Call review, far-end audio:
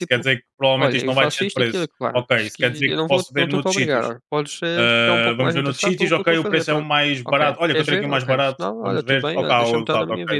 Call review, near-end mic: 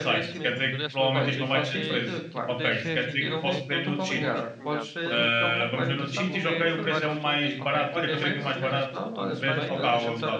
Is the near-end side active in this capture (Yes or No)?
Yes